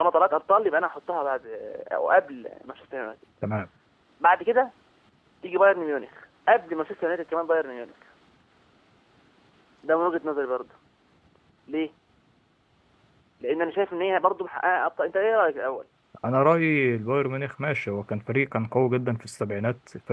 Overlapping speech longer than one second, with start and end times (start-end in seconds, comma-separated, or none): none